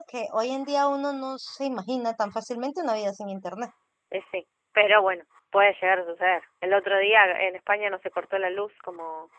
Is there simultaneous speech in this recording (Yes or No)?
No